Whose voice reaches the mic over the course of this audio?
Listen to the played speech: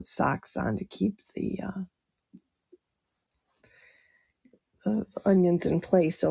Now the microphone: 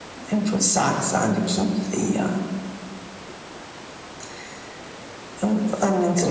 echo only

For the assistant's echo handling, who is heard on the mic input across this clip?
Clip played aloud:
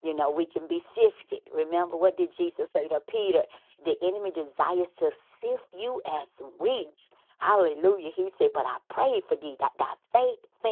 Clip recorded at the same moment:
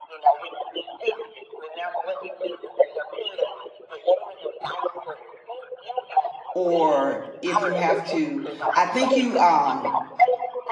both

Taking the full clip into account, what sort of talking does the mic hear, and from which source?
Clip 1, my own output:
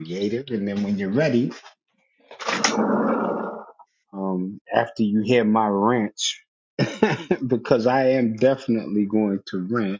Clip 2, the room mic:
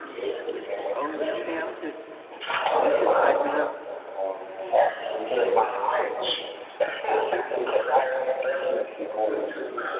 both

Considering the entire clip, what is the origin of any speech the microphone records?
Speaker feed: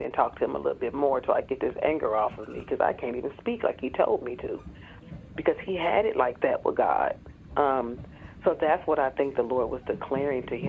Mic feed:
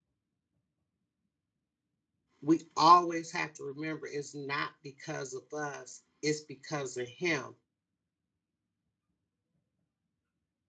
user only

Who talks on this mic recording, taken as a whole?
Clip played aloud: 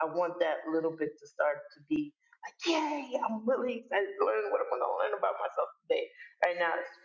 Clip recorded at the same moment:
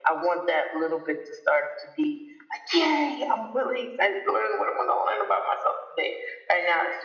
echo only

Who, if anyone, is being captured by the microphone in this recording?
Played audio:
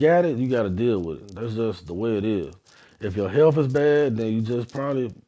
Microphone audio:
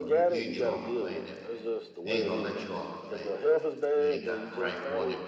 both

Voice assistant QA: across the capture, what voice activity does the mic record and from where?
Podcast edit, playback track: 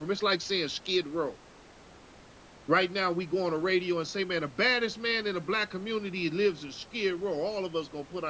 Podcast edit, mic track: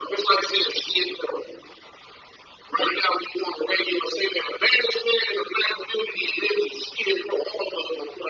echo only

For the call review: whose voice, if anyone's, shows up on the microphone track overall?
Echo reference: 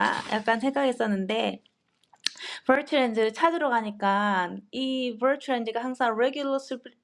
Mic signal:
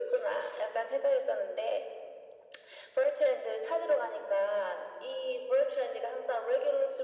echo only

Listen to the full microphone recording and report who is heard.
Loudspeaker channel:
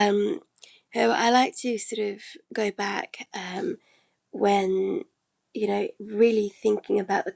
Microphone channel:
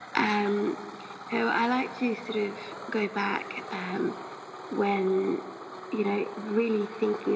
echo only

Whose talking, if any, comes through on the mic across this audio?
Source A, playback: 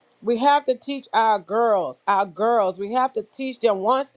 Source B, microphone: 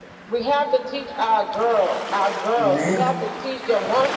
both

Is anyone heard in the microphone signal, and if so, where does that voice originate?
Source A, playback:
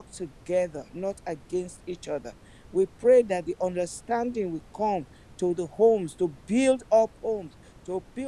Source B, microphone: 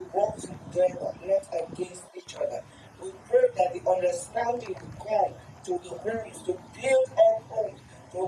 echo only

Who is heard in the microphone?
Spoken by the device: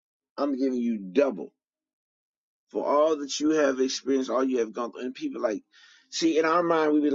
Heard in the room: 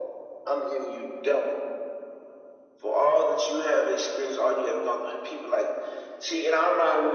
echo only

